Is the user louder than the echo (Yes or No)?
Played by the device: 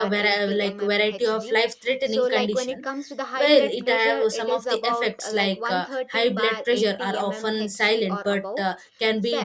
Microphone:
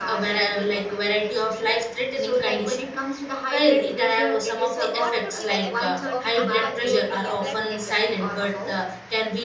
No